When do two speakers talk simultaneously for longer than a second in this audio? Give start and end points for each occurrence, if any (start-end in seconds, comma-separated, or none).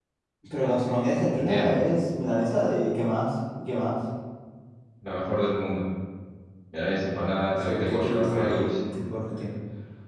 7.6-8.9